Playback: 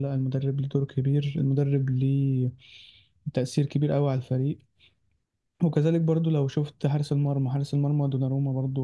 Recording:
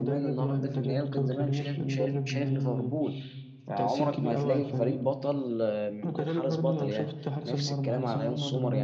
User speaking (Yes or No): Yes